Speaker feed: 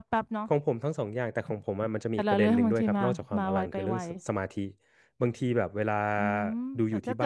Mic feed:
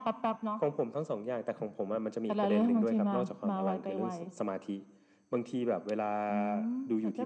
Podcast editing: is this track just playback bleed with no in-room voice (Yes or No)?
Yes